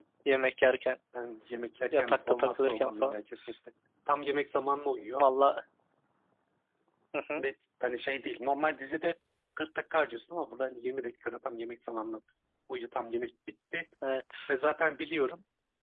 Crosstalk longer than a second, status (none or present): present